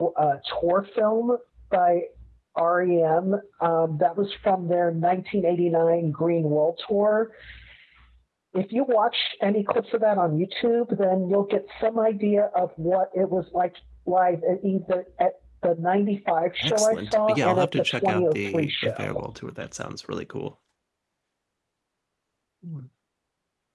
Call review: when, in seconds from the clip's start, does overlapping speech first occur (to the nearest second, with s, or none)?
17 s